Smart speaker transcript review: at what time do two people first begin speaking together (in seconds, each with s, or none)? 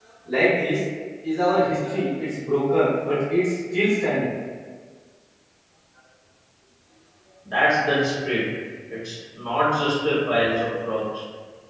none